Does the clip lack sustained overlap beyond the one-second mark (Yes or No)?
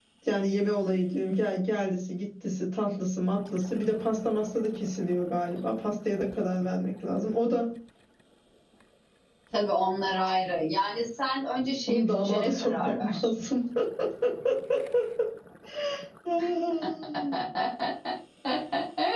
No